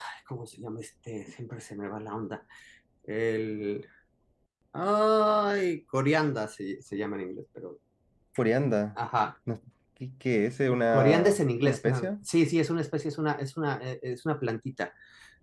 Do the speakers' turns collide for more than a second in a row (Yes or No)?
Yes